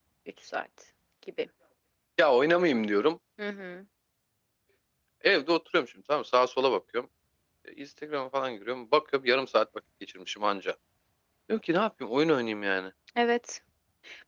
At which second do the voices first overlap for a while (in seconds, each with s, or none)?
none